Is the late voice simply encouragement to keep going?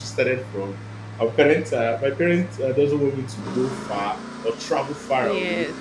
Yes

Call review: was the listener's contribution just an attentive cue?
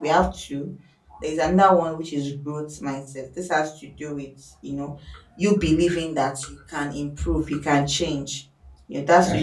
Yes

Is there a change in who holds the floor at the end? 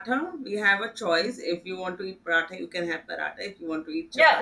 Yes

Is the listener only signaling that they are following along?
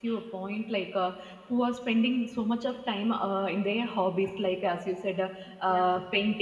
Yes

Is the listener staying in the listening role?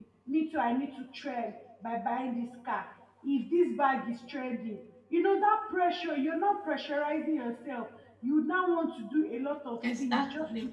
Yes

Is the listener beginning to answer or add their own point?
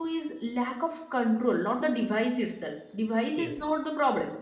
No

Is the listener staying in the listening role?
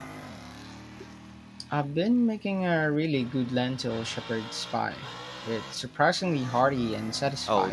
No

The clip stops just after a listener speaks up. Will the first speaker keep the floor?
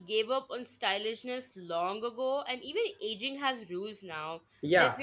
No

